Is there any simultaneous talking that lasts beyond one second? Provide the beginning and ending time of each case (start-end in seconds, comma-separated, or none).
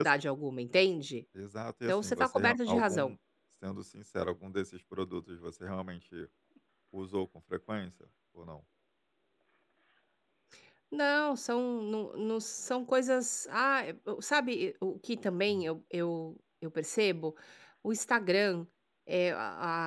1.9-3.1